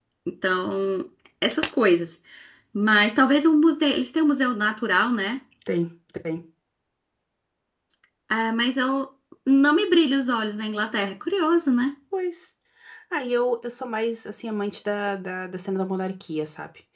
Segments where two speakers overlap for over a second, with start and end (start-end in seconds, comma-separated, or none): none